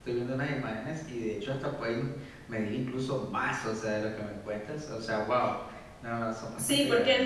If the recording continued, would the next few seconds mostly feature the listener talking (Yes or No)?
Yes